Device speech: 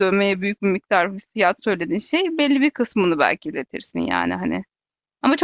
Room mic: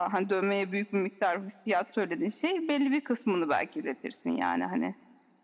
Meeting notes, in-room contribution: none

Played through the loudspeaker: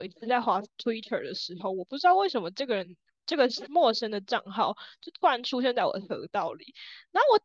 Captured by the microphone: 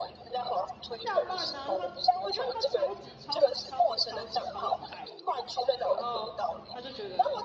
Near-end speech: present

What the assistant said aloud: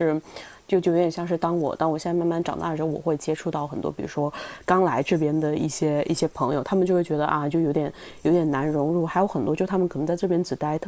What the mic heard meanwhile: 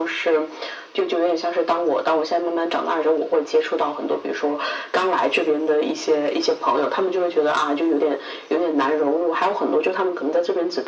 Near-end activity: none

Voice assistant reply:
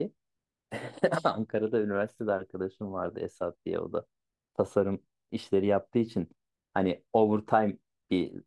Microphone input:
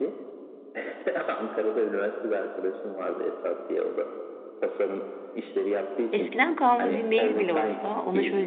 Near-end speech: present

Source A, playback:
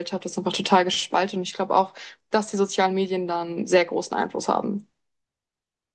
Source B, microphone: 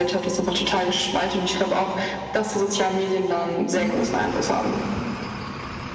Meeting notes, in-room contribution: present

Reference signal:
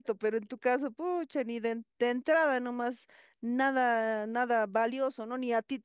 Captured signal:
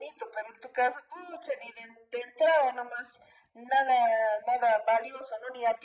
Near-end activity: none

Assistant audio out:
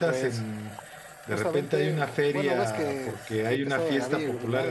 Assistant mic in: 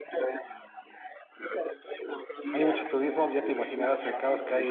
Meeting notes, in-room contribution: present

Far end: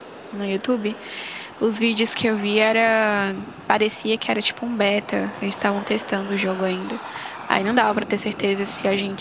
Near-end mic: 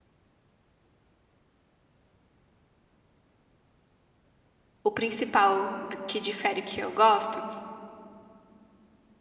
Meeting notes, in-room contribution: present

